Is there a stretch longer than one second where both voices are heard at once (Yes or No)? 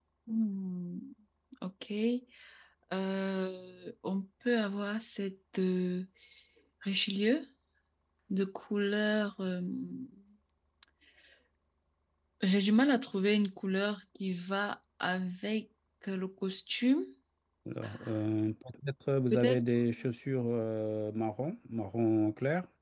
No